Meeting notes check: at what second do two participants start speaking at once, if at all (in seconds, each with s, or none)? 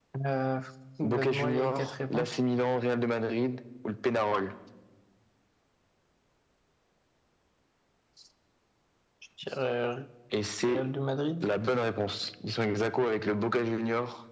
1.0 s